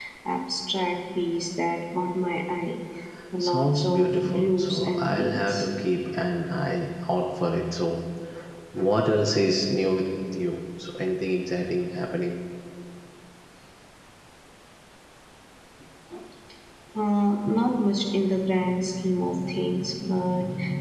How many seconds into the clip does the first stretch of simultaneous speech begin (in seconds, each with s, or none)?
3.4 s